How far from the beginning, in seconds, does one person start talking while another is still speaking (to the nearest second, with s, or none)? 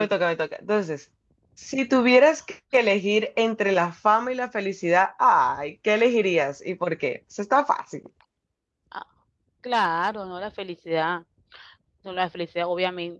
none